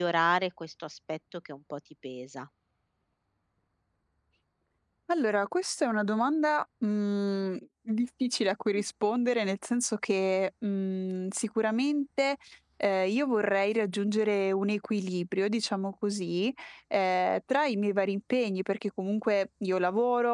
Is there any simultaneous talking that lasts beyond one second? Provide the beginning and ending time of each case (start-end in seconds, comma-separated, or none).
none